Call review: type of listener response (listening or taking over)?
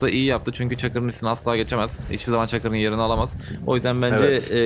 listening